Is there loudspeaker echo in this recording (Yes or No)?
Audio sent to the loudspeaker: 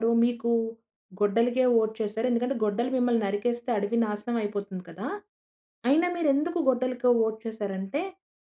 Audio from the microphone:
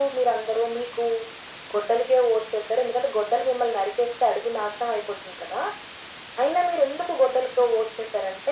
Yes